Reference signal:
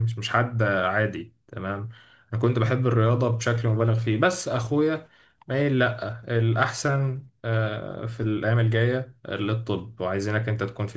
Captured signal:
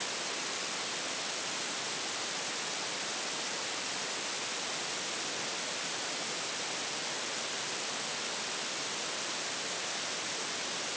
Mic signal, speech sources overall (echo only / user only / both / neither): neither